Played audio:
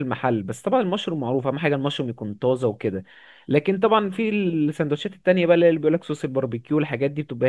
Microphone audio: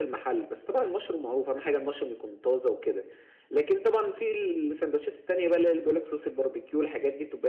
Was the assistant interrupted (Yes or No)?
No